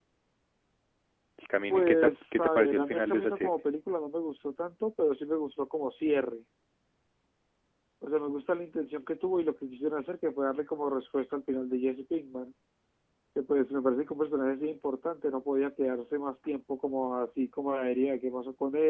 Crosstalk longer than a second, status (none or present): present